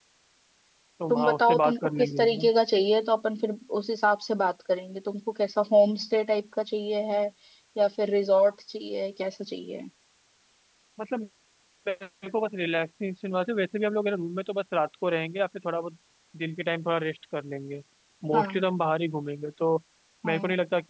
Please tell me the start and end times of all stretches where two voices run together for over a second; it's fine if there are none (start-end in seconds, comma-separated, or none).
1.1-2.5